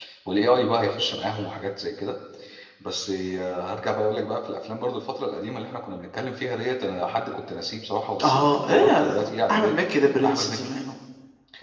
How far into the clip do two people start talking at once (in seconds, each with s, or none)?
8.2 s